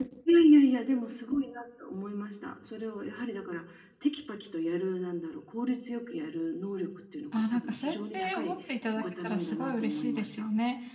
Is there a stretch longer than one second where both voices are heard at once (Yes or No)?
Yes